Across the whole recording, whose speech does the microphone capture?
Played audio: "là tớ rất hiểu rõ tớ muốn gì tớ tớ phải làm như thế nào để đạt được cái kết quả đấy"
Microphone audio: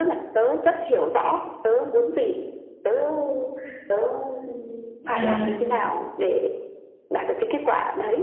both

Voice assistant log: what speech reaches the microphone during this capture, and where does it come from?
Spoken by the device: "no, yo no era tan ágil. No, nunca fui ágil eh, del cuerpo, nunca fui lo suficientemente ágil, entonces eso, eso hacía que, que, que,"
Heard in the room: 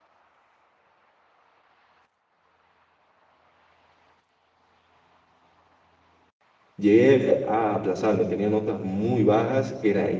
user only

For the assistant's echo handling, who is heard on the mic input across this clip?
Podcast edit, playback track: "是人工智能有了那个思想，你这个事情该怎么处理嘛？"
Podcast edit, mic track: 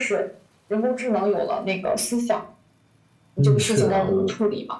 both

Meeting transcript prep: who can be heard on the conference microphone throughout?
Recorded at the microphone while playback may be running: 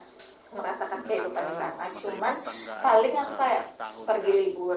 both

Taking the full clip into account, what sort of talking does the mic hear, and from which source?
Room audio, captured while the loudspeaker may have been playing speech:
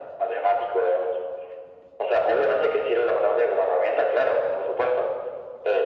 echo only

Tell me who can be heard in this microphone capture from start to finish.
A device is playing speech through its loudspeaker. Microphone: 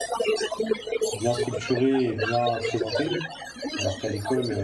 both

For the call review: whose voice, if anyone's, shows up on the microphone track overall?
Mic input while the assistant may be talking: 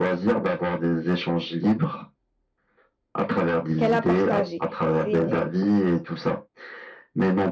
both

